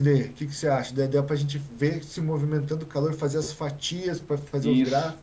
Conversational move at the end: taking over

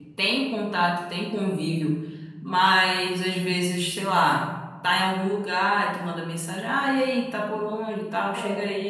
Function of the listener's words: listening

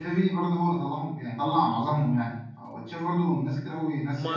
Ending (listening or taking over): taking over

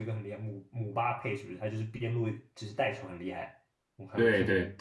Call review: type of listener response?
taking over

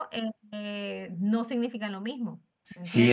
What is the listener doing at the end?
taking over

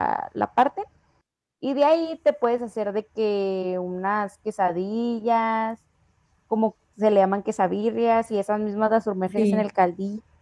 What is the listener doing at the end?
listening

